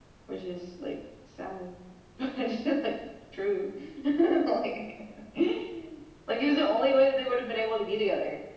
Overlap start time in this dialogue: none

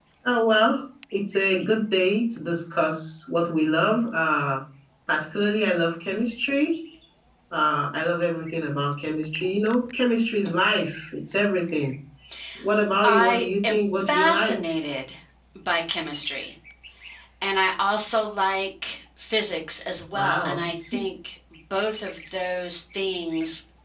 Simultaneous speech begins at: 13.0 s

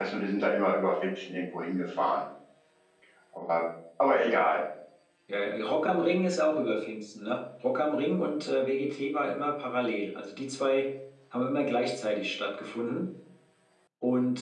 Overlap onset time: none

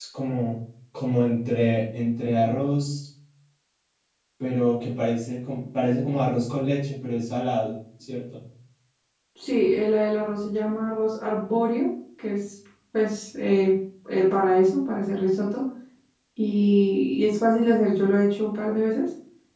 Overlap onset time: none

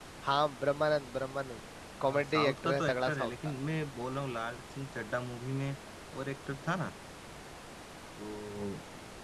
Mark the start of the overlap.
2.0 s

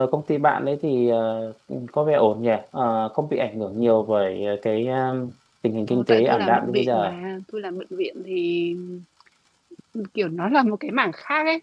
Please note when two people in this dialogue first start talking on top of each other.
5.9 s

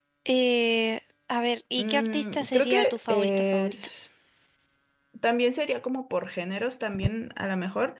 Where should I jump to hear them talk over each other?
1.8 s

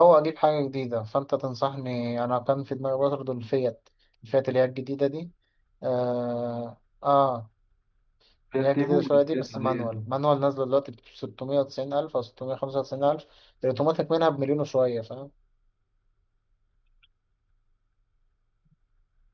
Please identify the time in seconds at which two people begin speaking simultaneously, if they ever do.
8.6 s

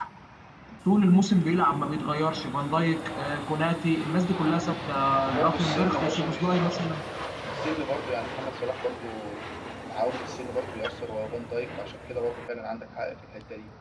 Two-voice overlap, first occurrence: 5.3 s

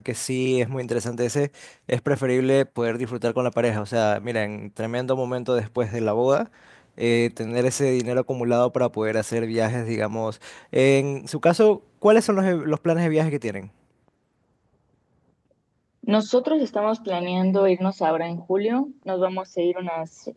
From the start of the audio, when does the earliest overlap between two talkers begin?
none

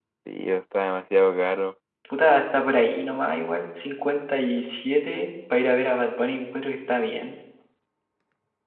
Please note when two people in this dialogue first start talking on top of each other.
none

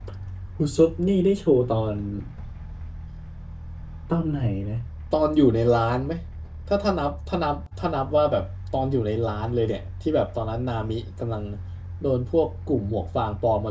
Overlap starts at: none

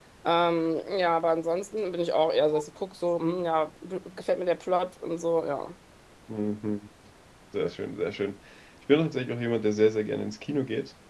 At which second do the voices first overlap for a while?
none

